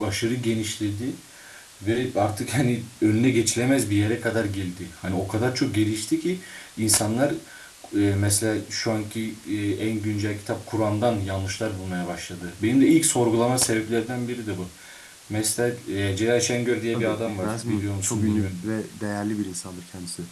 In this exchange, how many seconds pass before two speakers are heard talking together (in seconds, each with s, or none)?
16.9 s